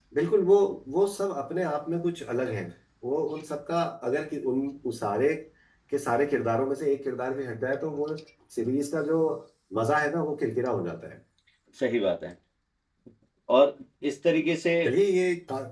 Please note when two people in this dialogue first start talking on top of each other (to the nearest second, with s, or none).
none